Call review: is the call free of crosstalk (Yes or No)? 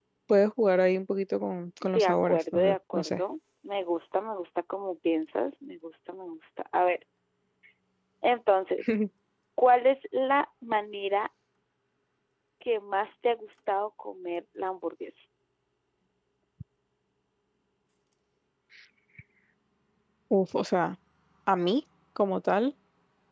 No